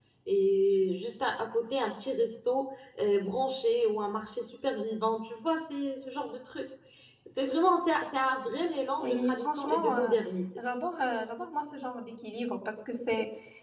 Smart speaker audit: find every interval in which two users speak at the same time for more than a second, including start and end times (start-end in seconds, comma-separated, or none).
8.9-10.2